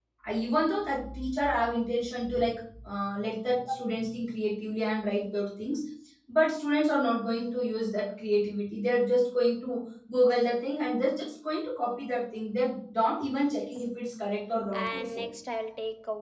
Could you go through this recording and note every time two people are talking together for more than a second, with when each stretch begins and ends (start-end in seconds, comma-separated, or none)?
none